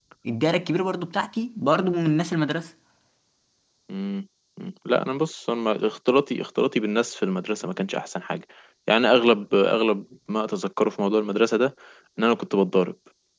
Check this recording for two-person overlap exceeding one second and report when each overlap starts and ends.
none

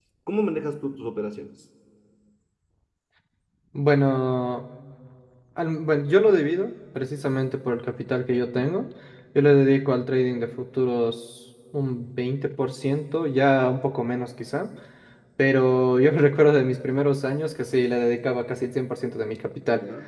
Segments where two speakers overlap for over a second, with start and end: none

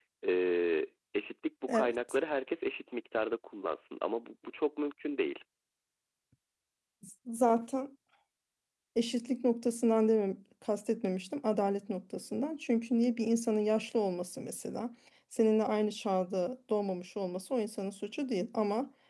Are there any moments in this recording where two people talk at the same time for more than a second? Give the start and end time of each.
none

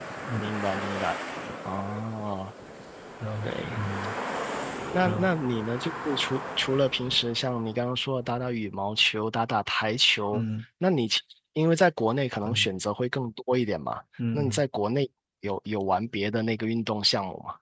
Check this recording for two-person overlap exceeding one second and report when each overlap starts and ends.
none

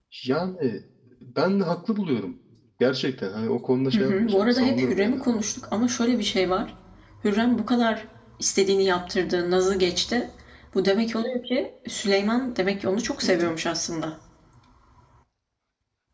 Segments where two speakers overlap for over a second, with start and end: 3.9-5.4

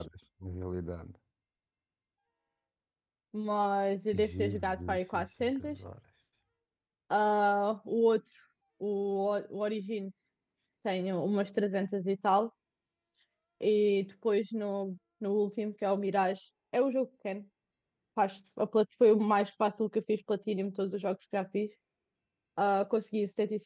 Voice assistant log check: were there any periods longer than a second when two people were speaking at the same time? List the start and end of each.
4.1-5.8

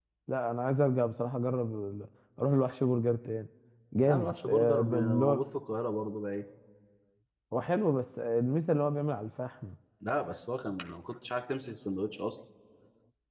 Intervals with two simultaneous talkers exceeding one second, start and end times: 4.1-5.4

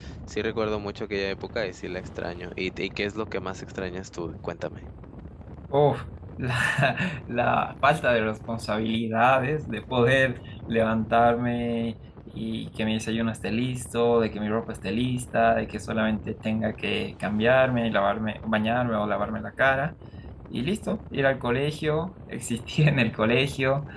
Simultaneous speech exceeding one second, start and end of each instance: none

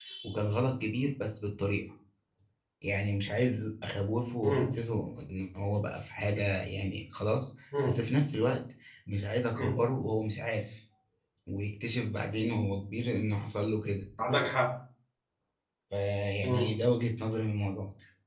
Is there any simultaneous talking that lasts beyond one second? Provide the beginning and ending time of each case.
none

